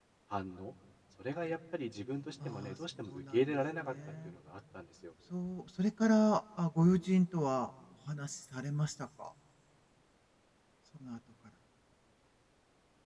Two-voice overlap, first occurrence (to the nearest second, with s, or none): 2 s